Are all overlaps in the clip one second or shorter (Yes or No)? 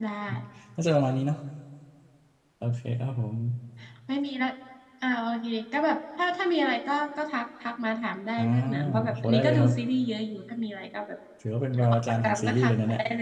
No